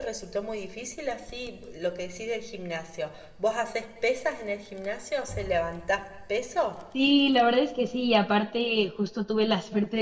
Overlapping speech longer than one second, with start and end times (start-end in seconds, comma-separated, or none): none